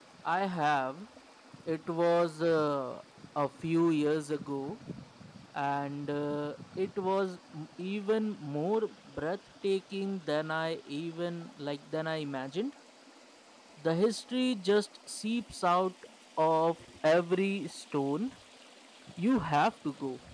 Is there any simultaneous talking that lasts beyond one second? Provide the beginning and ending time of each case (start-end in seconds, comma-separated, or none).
none